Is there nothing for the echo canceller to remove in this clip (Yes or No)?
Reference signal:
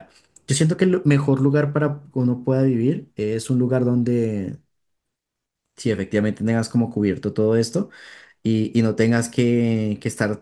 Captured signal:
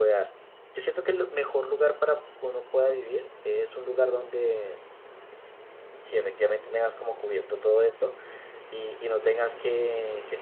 No